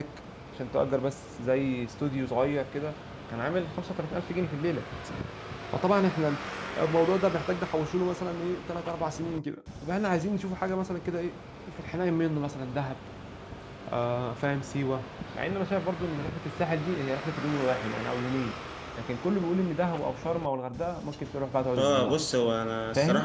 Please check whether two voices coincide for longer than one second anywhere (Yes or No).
No